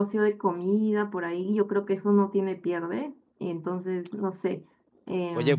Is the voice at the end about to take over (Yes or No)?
Yes